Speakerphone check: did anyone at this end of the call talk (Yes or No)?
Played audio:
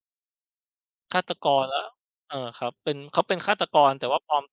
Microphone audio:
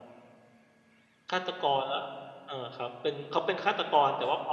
No